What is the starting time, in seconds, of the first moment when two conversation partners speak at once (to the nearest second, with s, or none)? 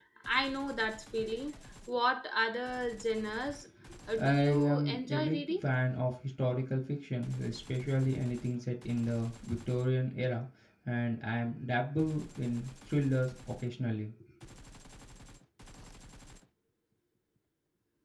4 s